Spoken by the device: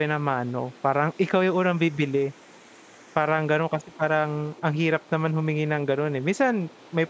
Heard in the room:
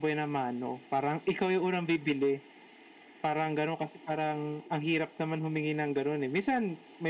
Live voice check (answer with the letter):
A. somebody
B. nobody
B